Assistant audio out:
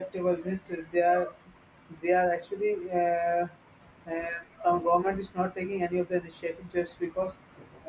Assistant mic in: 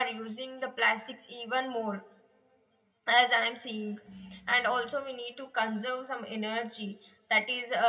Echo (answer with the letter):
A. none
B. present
A